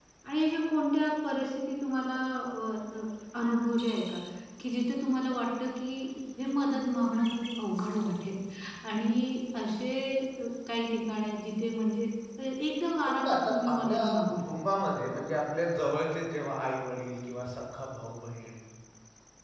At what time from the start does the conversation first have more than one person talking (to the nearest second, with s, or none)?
13 s